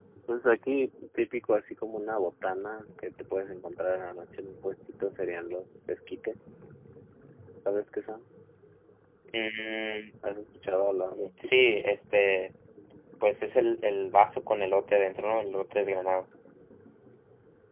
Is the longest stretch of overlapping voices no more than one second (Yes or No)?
Yes